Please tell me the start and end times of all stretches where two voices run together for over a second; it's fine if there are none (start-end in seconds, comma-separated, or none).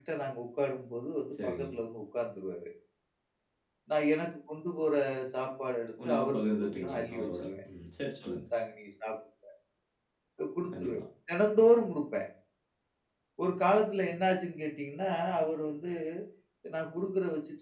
6.0-7.5